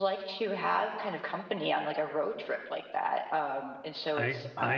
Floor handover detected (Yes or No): Yes